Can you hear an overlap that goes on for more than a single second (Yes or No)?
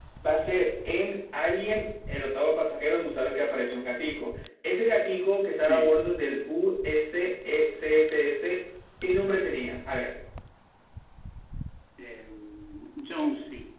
No